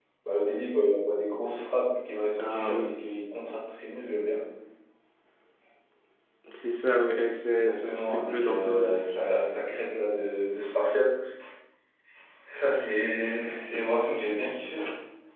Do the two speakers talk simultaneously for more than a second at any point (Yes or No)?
Yes